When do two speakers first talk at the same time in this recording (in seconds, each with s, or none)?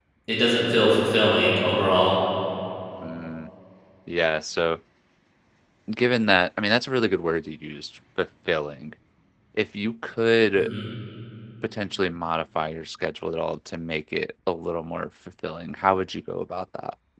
none